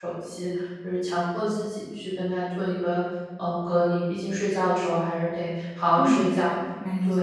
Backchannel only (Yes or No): No